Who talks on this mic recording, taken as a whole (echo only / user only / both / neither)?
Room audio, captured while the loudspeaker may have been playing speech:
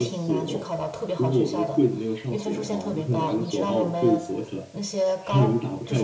both